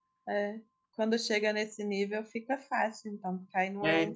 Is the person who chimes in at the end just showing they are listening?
No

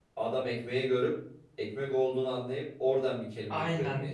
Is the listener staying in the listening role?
No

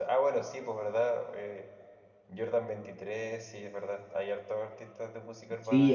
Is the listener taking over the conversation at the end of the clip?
Yes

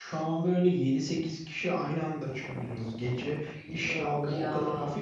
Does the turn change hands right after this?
No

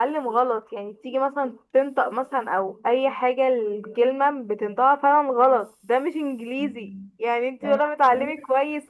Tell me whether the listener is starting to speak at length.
No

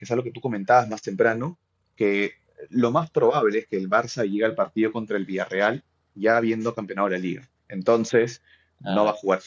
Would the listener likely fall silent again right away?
Yes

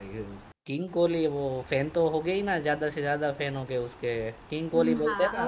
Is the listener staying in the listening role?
No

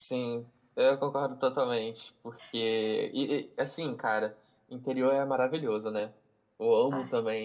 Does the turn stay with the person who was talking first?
Yes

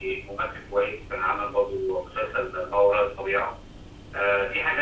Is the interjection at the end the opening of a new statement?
No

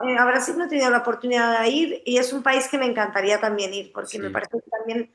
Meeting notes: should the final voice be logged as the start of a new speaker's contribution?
No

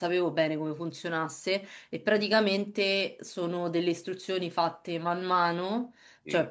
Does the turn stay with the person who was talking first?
Yes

